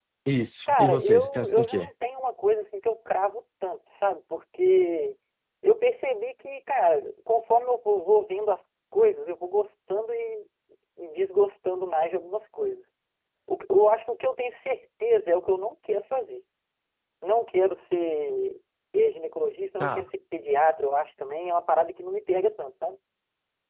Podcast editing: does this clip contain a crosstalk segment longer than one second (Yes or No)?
Yes